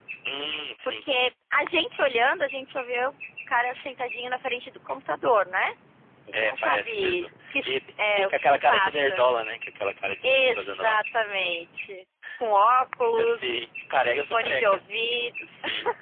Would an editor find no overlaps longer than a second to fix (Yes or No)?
No